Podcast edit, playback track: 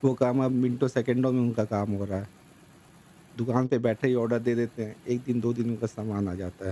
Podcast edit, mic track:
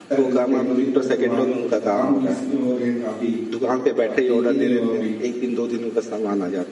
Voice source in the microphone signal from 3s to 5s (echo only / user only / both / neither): both